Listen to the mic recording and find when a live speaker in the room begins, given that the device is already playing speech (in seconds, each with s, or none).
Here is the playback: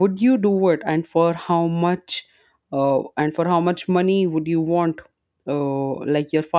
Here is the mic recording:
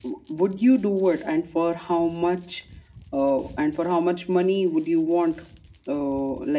none